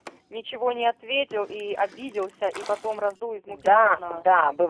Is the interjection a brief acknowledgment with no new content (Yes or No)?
No